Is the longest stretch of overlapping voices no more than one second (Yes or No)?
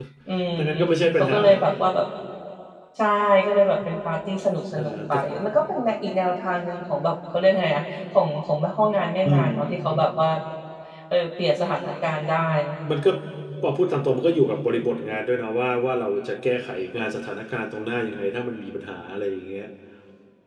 Yes